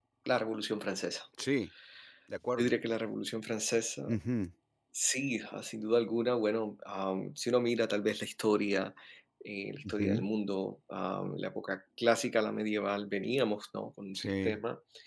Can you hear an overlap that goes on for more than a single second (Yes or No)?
No